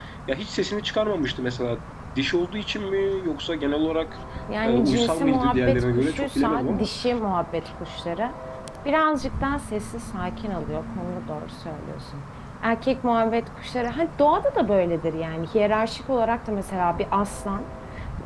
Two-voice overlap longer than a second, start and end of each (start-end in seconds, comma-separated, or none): 4.6-6.9